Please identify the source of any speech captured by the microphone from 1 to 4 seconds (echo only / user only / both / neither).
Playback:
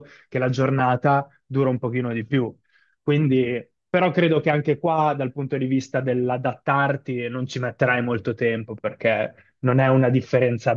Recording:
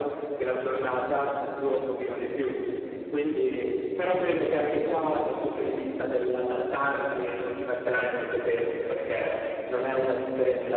echo only